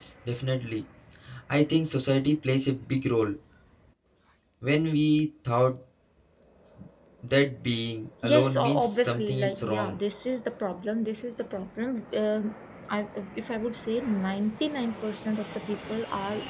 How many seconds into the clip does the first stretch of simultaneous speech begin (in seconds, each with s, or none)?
8.2 s